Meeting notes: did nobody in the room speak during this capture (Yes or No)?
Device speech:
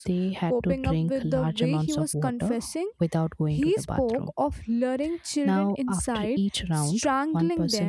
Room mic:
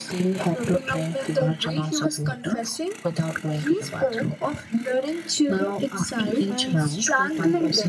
No